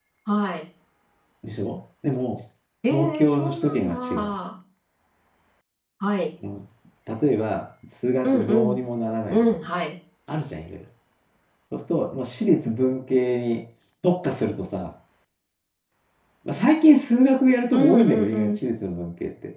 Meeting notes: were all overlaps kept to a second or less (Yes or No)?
No